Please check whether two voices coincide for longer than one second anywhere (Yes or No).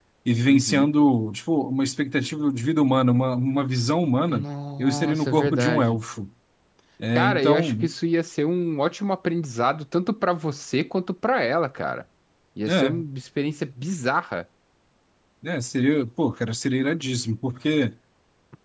Yes